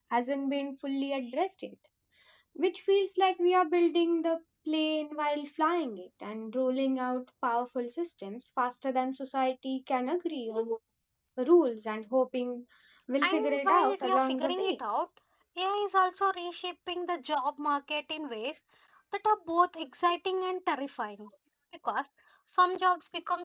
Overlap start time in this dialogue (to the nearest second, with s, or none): 13 s